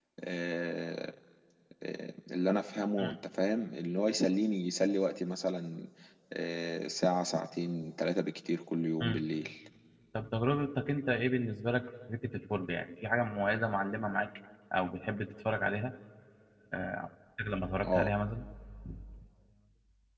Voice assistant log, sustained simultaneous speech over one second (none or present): none